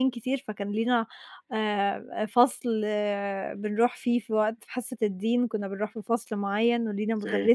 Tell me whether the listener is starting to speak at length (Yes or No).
No